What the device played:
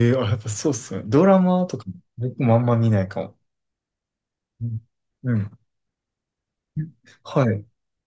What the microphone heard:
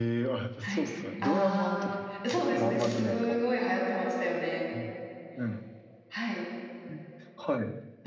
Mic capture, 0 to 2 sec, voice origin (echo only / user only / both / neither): both